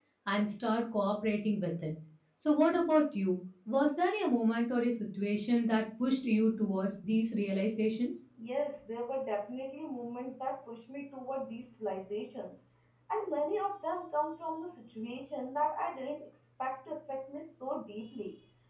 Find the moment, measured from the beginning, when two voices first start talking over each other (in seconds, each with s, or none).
none